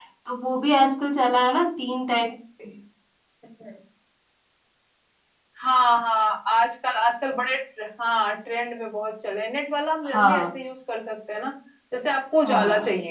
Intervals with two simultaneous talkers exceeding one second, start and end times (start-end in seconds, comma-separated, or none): none